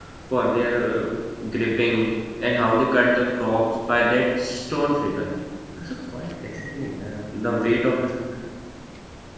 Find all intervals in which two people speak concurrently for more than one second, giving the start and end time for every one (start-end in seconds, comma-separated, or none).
none